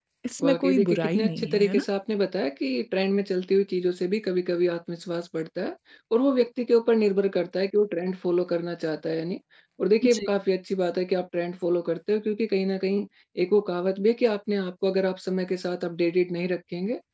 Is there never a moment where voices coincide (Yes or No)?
No